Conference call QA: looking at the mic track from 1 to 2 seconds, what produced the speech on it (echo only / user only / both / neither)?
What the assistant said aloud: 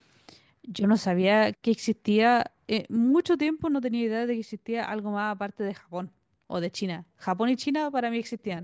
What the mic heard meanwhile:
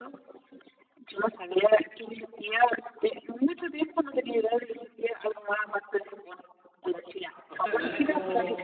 echo only